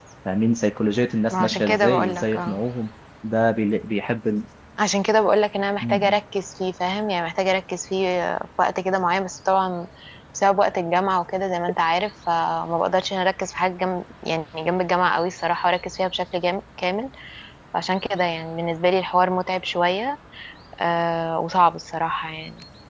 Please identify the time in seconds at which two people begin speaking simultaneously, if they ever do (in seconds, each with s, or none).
1.3 s